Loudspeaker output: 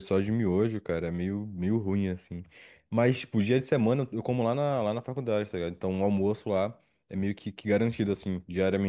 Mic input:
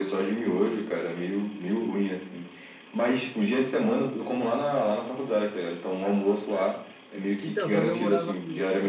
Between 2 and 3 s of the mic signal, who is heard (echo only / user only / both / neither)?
echo only